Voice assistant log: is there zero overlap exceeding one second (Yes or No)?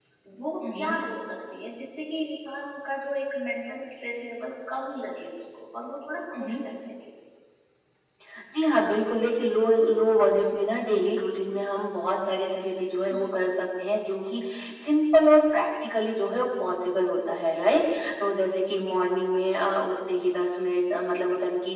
Yes